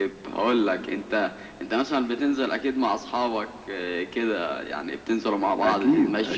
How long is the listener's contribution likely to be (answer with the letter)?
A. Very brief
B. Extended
B